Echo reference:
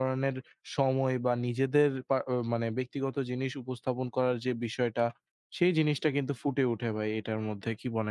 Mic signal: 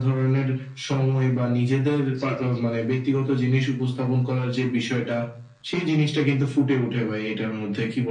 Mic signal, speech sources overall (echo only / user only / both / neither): both